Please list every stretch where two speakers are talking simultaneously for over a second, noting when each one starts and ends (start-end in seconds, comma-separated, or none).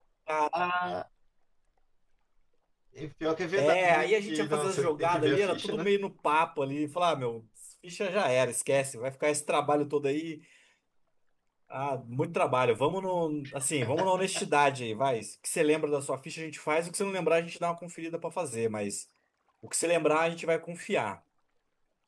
3.6-5.9